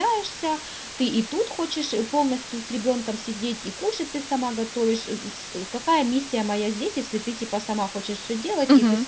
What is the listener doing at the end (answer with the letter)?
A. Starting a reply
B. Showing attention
A